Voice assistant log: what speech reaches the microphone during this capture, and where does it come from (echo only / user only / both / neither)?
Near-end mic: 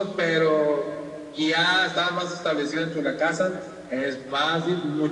echo only